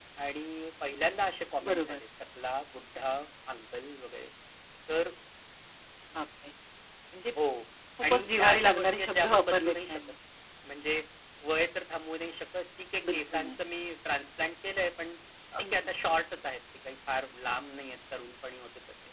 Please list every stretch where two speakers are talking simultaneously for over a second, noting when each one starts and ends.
8.0-10.0

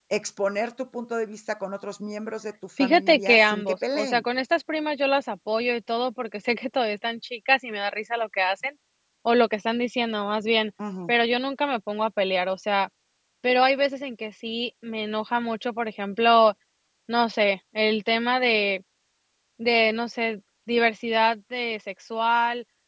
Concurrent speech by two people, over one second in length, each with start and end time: 2.8-4.2

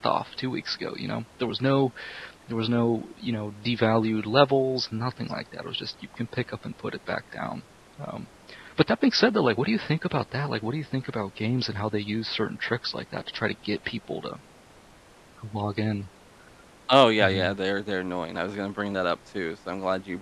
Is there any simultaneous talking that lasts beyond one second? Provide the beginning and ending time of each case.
none

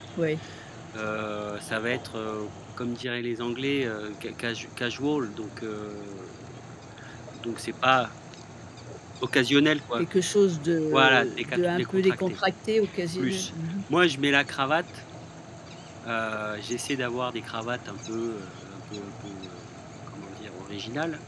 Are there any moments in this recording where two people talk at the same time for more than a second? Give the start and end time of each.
10.9-12.4

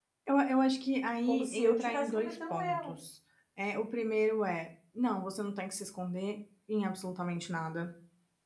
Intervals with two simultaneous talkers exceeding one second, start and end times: 1.3-2.9

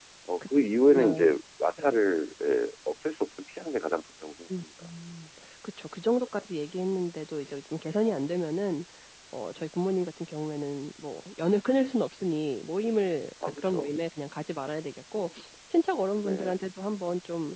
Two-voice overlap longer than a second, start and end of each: none

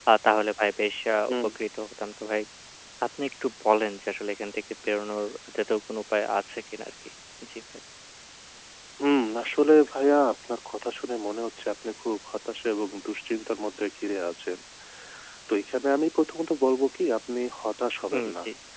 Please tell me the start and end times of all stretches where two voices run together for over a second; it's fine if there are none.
none

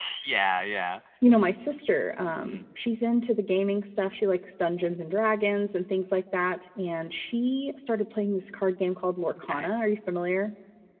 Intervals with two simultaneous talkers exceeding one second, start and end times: none

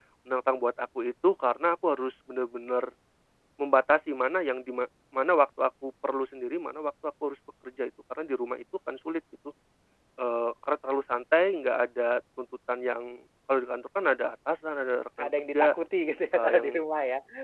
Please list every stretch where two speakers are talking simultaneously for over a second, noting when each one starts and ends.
none

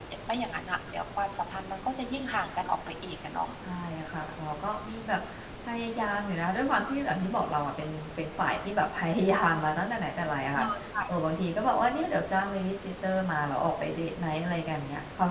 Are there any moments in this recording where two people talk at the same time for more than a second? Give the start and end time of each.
none

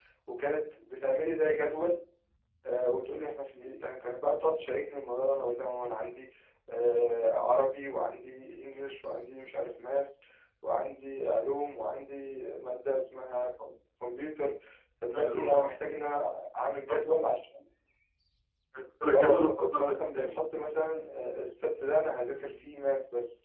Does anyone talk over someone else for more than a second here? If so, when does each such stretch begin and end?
19.1-20.4

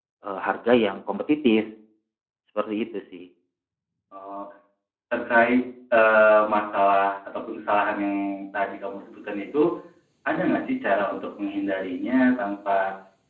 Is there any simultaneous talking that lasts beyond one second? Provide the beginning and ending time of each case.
none

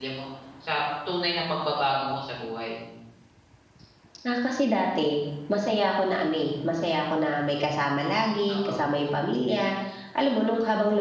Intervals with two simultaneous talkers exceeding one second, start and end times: none

